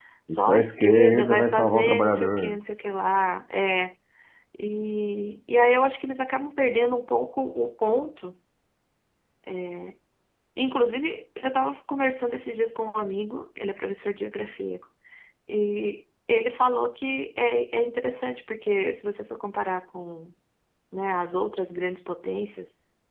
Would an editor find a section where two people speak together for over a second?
Yes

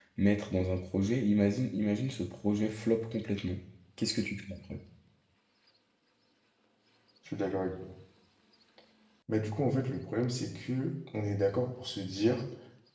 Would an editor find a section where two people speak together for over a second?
No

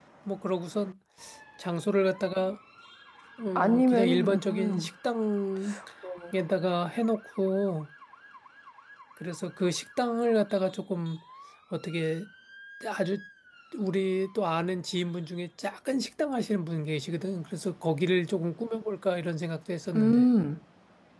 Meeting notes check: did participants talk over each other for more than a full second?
Yes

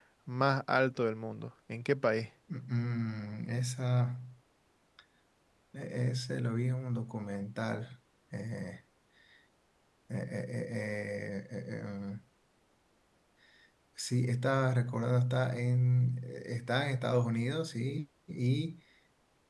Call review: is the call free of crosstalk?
Yes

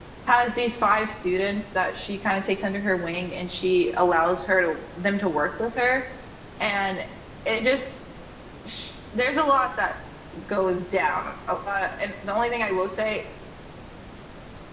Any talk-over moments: No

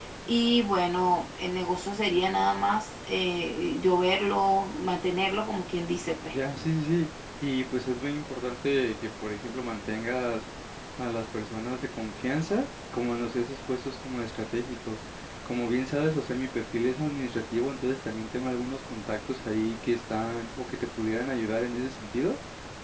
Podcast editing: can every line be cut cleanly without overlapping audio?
Yes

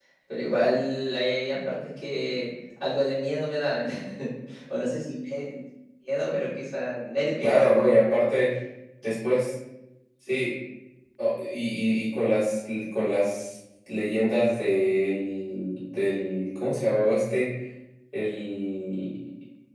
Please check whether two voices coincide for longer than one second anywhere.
No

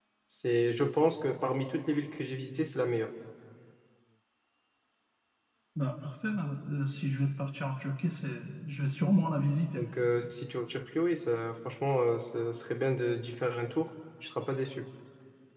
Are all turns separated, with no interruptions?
Yes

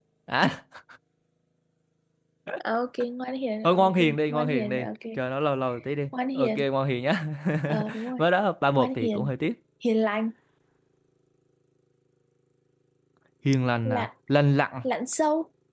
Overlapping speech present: Yes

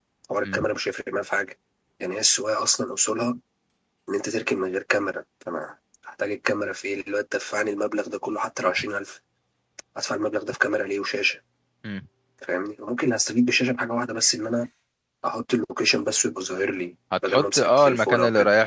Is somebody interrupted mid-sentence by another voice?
Yes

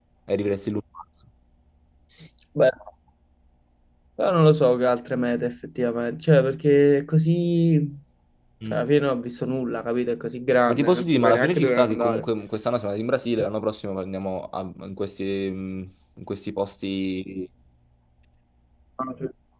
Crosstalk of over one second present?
Yes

